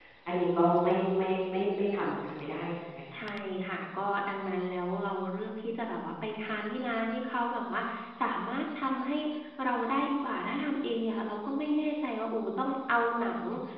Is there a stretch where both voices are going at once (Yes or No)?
No